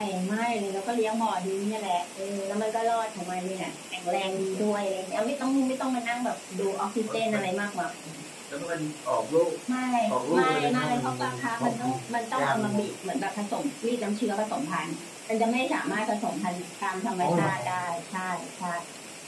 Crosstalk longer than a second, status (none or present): present